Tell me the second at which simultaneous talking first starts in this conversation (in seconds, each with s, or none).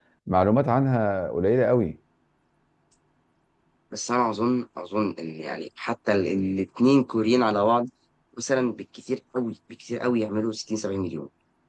none